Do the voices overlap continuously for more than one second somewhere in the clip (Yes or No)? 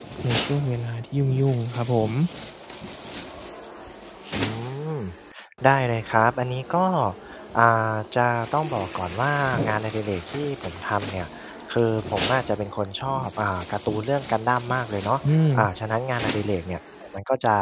No